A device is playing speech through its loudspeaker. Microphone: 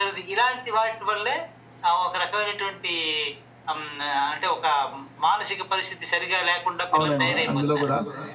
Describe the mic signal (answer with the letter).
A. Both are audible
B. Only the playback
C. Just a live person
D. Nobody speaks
A